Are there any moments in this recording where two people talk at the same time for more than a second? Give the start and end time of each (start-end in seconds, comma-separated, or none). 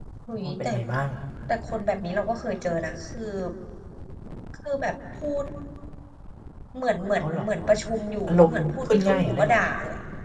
8.3-9.6